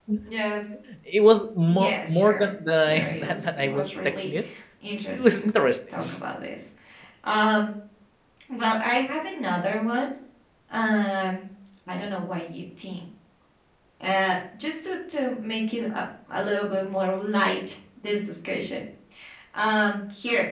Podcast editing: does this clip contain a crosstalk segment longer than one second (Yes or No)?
Yes